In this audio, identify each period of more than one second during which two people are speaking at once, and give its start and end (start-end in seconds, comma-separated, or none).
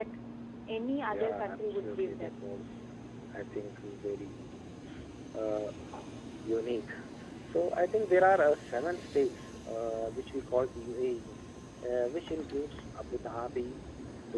1.1-2.3